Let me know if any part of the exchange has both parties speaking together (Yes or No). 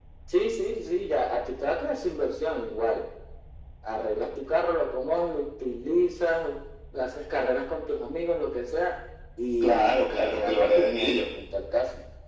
Yes